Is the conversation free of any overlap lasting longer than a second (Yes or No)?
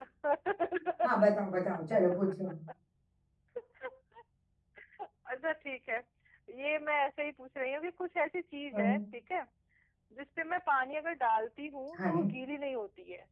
Yes